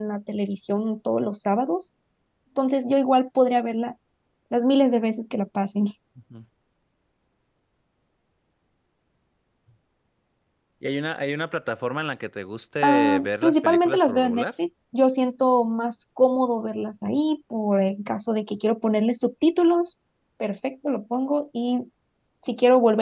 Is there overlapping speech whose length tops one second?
Yes, from 12.8 s

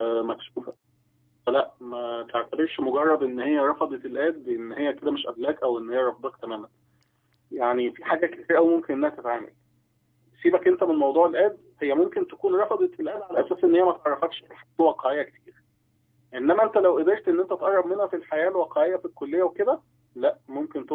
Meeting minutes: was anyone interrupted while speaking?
No

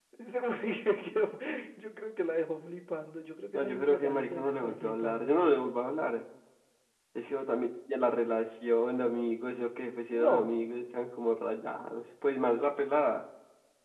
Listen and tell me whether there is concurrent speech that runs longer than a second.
Yes, from 3.5 s

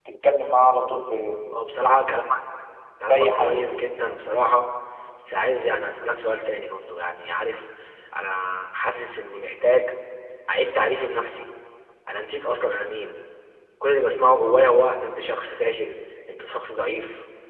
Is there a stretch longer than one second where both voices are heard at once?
No

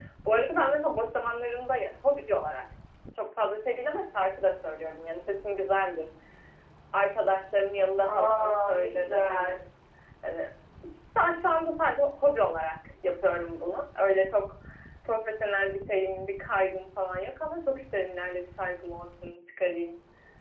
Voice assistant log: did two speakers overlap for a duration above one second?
Yes, from 8.0 s

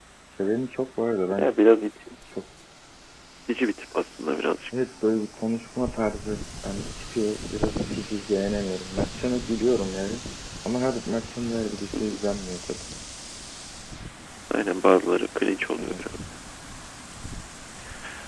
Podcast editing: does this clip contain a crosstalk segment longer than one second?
No

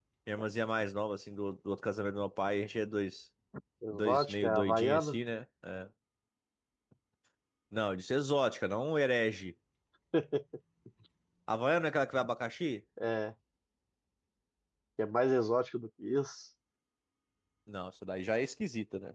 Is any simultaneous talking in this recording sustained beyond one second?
Yes, from 3.9 s

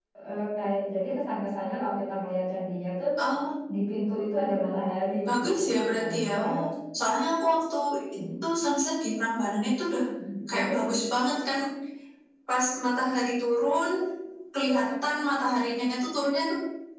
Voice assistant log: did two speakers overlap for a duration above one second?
Yes, from 5.3 s

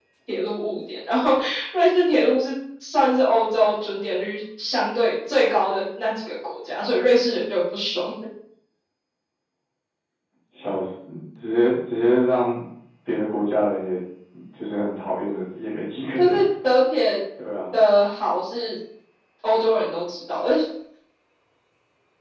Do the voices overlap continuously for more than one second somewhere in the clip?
No

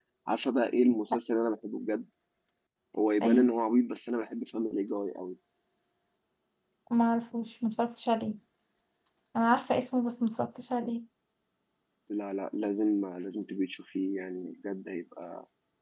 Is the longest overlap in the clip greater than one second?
No

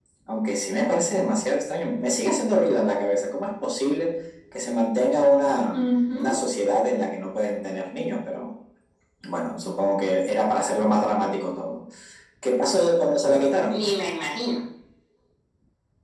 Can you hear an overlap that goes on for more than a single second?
No

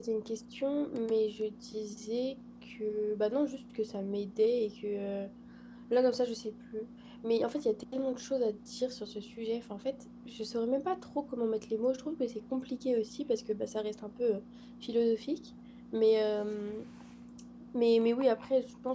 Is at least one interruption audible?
No

